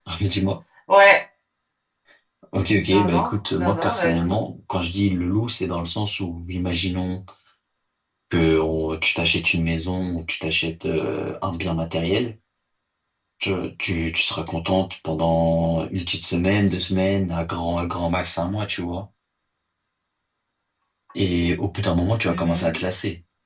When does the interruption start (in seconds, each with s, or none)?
2.9 s